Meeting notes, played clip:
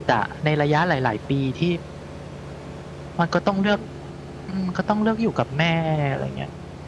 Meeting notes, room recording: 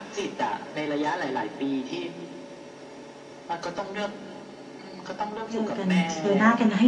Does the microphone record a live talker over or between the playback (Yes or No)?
Yes